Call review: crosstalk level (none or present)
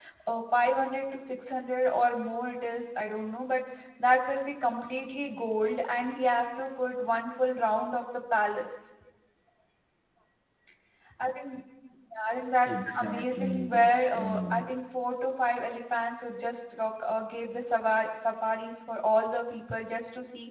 present